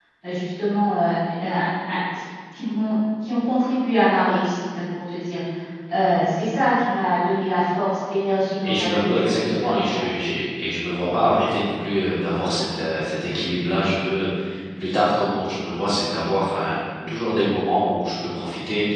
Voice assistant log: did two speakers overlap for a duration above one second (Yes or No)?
Yes